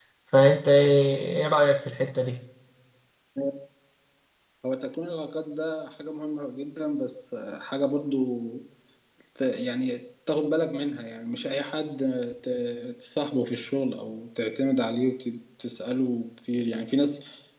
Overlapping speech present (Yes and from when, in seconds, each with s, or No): No